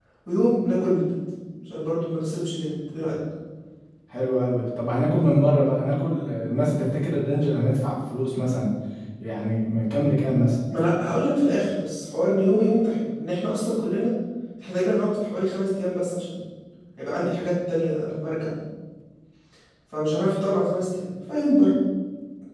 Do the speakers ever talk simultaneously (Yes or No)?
No